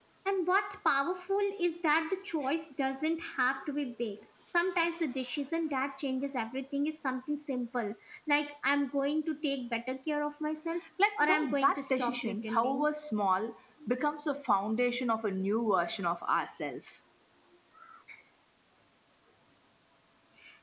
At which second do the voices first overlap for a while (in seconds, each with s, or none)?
11.0 s